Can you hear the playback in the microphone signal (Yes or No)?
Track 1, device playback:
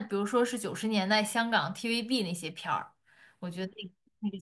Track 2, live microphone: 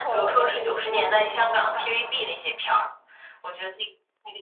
Yes